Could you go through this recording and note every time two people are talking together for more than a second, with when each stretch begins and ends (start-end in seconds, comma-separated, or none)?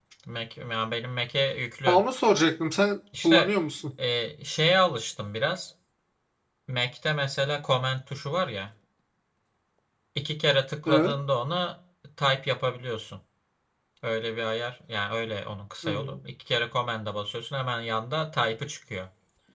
none